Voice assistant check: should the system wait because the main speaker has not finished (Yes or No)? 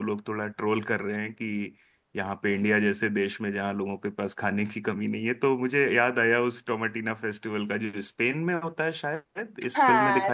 No